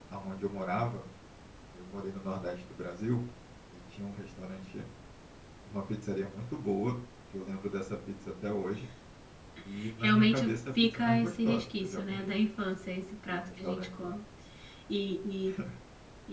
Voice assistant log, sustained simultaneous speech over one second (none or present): present